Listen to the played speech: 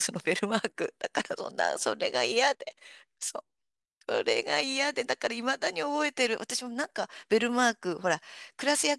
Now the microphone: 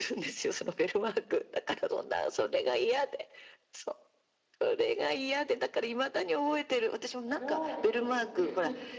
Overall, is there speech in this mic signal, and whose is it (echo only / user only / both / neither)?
both